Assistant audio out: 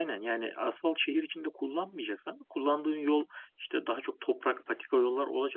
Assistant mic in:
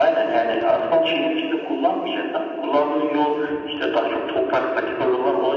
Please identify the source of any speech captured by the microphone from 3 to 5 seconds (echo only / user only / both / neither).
echo only